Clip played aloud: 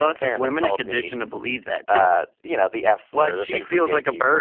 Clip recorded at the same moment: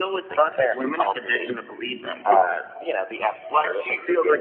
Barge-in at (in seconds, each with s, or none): none